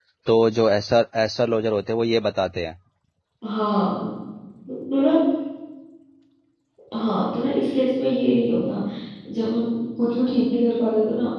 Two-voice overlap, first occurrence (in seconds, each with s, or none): none